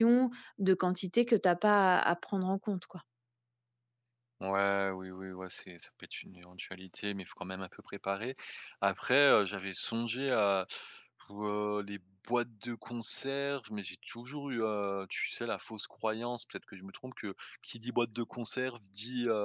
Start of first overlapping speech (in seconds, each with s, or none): none